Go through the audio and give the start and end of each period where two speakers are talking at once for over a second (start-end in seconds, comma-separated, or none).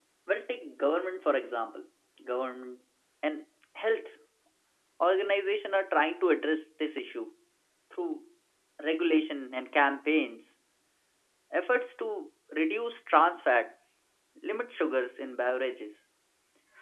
none